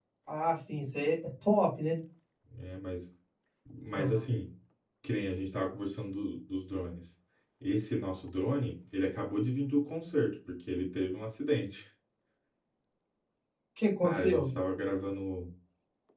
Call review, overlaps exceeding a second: none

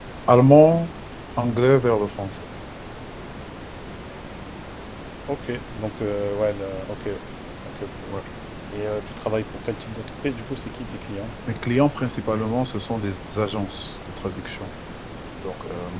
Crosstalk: none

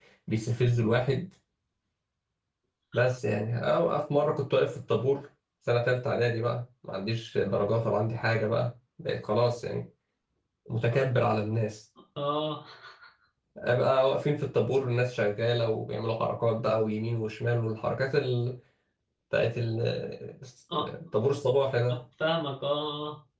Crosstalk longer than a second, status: none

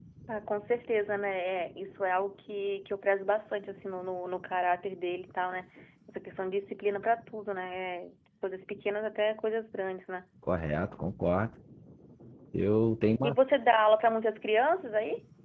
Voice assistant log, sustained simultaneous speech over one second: none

